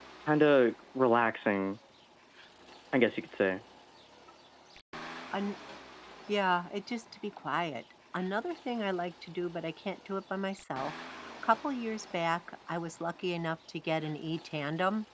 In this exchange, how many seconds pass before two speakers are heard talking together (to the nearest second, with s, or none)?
none